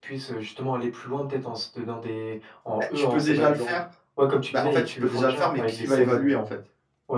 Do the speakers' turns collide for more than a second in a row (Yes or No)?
Yes